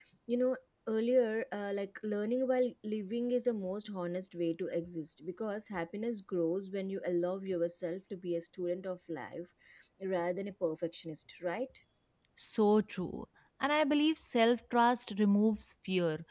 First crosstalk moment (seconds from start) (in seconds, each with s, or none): none